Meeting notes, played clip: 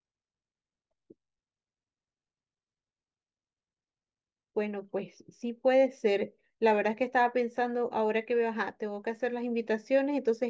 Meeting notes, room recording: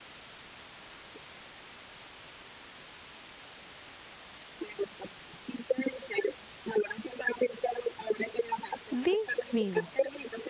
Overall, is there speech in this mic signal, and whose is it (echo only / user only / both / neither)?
both